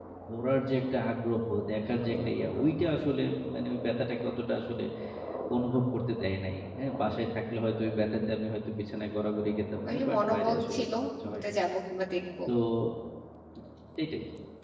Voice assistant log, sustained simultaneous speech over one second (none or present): present